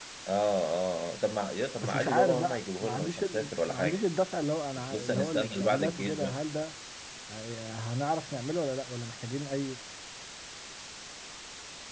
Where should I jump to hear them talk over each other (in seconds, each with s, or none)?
1.8 s